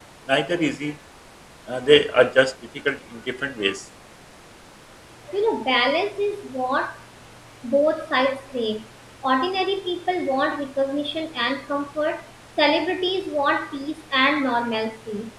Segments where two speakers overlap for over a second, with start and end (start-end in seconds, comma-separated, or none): none